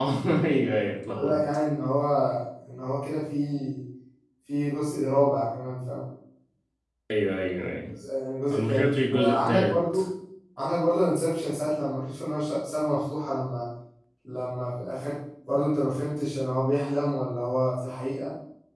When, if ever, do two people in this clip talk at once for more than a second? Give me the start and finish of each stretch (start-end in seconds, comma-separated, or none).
8.5-10.0